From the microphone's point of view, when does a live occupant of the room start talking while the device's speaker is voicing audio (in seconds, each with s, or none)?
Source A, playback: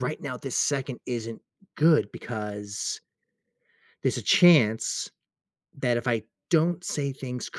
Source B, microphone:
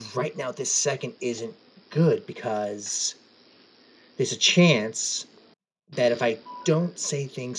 none